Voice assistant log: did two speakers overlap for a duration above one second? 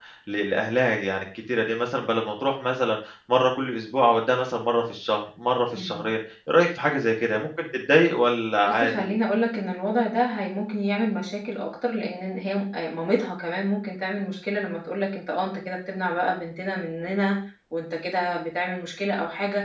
No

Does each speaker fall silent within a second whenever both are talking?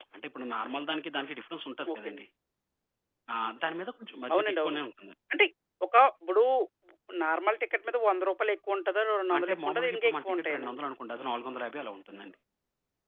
No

